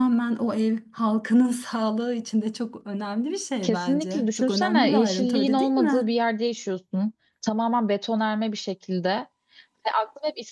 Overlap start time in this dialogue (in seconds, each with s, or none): 3.6 s